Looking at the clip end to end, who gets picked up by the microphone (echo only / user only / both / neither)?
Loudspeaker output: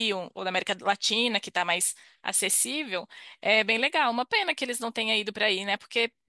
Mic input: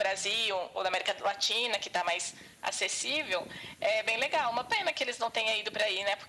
echo only